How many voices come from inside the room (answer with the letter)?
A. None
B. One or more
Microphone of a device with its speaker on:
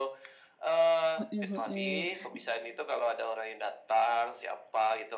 B